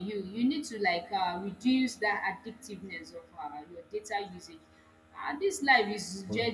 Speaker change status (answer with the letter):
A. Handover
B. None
B